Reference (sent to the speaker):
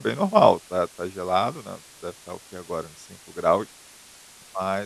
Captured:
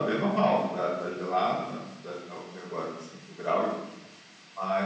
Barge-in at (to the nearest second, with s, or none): none